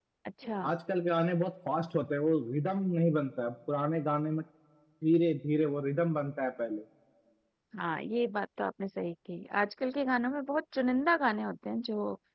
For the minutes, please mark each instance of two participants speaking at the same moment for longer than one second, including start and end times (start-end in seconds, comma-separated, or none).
none